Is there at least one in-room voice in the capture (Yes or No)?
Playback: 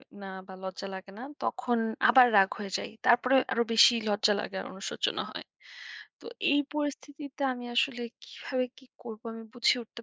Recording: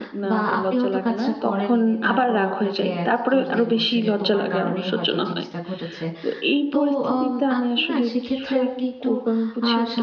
Yes